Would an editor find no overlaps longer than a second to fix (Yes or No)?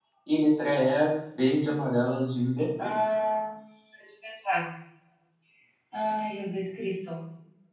Yes